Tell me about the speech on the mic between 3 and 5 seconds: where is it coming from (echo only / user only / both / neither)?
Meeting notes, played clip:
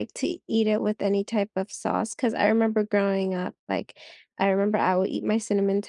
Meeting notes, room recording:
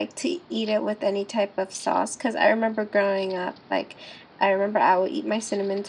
echo only